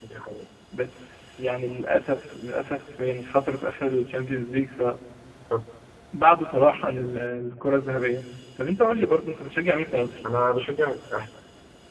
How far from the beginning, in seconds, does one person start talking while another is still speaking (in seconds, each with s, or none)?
none